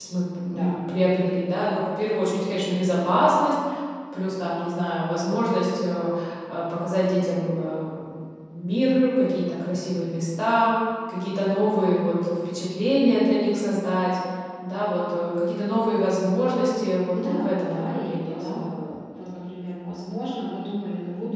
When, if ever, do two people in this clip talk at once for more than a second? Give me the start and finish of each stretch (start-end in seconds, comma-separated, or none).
17.1-18.6